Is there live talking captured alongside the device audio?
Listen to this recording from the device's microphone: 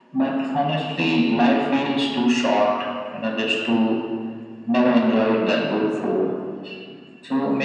No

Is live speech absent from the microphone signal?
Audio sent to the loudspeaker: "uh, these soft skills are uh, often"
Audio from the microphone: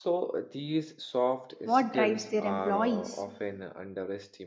No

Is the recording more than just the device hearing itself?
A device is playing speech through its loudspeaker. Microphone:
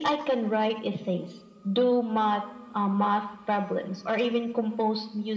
No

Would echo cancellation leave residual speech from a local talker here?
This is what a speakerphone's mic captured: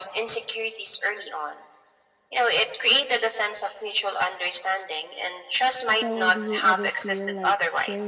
Yes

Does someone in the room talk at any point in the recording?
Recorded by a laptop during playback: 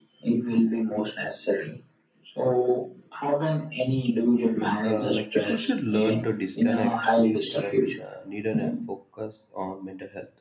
Yes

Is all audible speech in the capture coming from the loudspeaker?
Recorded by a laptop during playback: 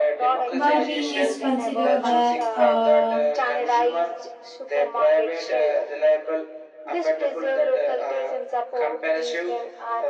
No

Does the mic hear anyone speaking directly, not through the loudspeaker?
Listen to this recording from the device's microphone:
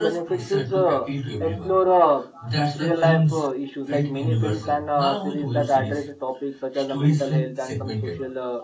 Yes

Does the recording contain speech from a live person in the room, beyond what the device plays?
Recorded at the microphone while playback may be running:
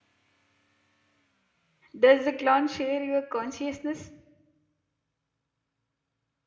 Yes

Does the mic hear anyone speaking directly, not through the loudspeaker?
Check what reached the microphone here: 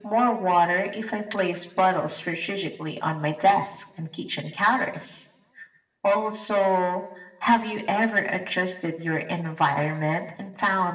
No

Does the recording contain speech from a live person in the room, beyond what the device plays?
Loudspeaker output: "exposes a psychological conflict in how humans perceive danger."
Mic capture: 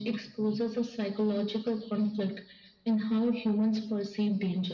No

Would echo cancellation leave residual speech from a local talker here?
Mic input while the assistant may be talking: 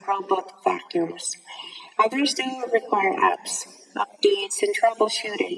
No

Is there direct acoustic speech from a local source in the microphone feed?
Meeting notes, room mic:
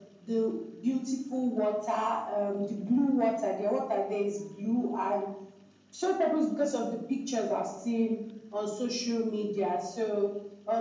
No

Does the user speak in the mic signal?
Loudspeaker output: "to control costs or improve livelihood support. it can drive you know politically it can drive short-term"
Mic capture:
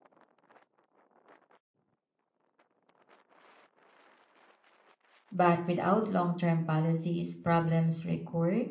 Yes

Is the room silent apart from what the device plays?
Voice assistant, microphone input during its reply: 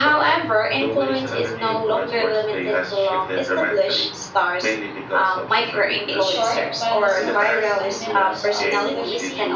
No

